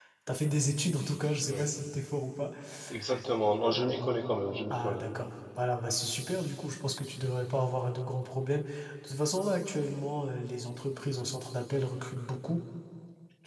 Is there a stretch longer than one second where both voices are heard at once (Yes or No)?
No